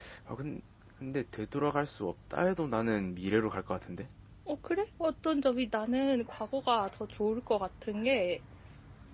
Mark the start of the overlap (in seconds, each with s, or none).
none